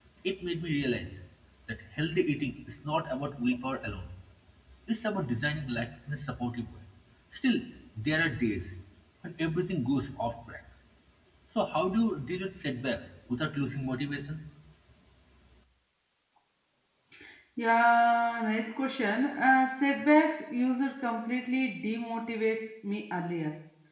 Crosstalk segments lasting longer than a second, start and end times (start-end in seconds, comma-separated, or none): none